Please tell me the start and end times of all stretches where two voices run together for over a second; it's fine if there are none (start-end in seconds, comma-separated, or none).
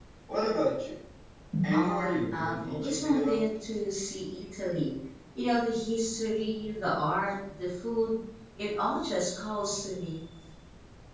1.7-3.4